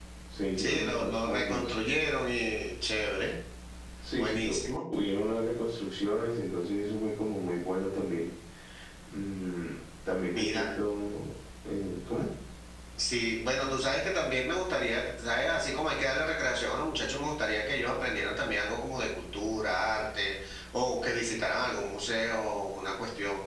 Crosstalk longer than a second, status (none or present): present